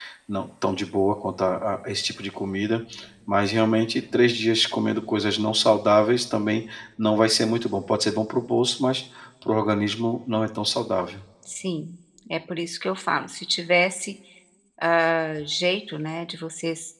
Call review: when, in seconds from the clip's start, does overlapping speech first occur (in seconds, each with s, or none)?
none